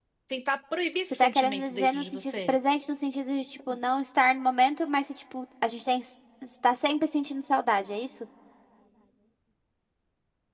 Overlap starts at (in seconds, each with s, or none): 1.1 s